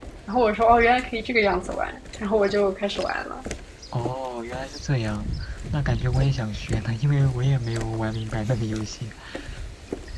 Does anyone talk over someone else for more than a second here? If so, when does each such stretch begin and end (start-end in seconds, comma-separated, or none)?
none